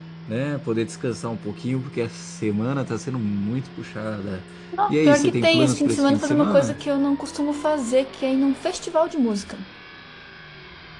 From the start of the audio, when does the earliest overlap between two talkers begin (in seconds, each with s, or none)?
4.9 s